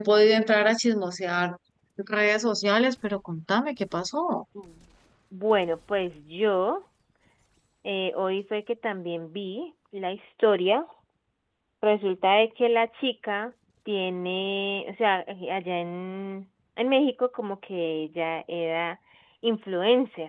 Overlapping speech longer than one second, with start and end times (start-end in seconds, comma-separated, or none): none